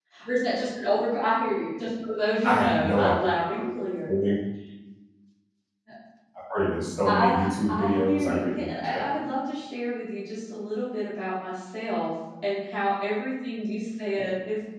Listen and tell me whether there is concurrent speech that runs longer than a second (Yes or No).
Yes